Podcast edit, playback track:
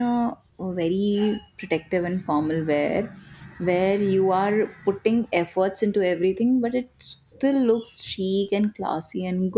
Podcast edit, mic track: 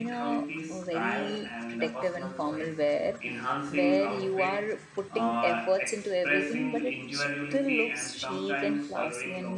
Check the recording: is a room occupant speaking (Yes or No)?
Yes